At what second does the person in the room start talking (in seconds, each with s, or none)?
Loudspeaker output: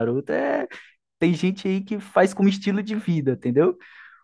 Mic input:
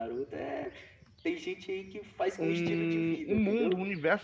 2.4 s